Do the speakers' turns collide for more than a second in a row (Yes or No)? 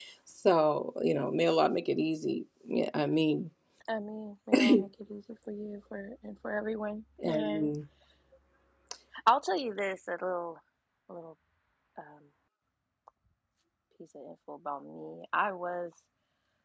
No